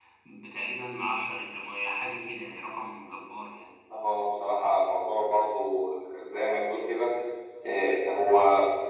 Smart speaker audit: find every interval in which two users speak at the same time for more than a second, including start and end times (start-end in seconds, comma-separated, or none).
none